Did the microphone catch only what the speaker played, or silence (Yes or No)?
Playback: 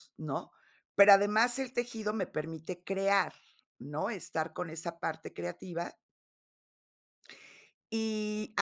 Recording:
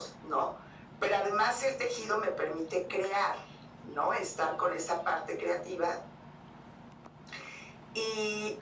Yes